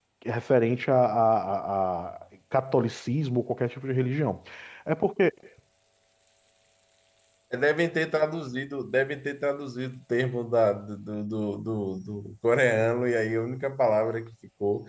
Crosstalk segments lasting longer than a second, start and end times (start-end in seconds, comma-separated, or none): none